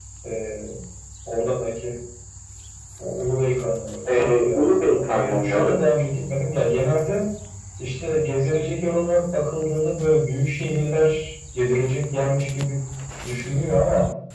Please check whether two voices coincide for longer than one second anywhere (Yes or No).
Yes